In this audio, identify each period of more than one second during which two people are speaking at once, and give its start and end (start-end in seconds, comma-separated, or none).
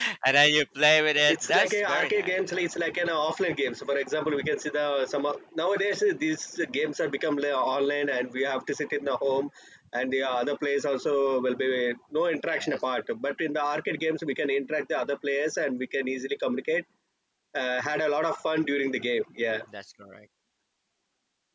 1.3-2.7